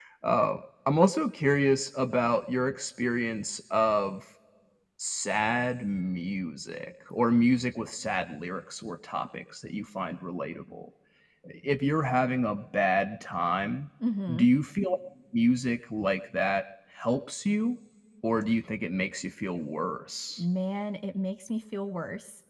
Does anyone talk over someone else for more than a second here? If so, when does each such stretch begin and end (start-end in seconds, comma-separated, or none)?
none